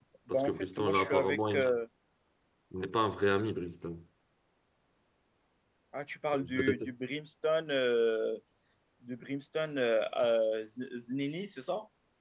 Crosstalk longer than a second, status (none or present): present